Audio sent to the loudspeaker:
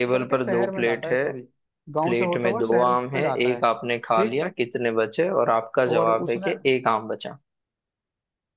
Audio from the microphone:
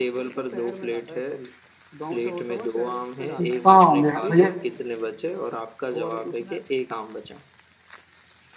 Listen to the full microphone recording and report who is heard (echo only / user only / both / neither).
both